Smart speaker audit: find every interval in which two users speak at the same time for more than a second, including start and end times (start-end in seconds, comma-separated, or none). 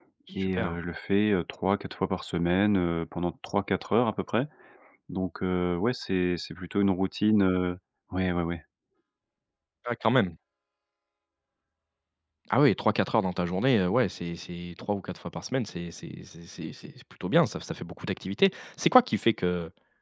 none